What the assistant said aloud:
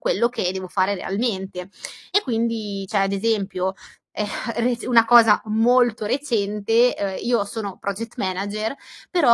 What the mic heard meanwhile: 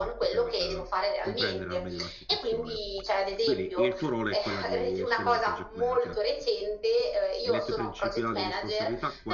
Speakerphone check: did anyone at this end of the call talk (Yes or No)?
Yes